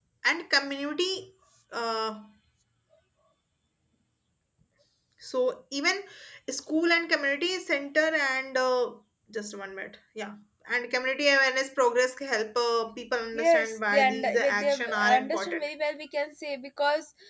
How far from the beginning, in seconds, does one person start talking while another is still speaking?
13.3 s

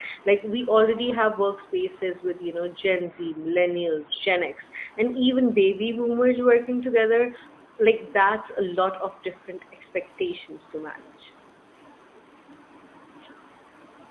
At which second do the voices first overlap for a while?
none

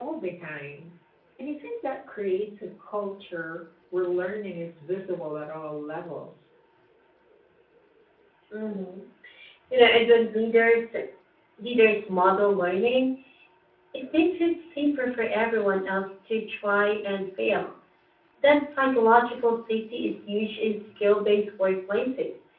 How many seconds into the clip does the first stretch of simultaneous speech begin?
none

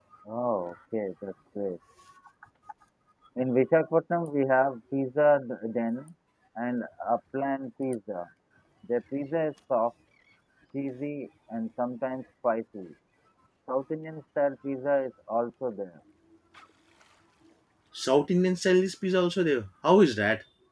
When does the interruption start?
none

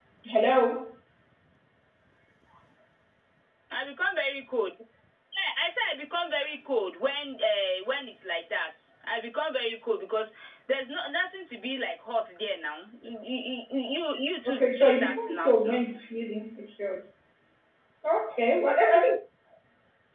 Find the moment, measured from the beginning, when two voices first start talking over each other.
14.4 s

